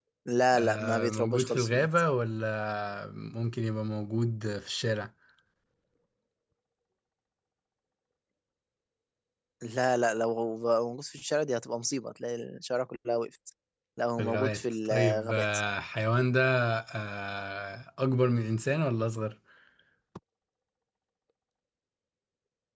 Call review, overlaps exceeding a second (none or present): present